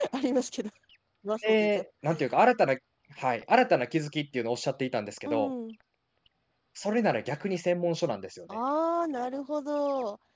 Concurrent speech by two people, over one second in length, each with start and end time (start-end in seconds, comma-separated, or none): none